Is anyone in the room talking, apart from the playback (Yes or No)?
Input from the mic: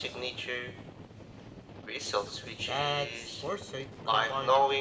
Yes